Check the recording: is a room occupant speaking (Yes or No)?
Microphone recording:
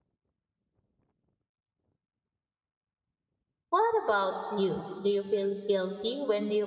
Yes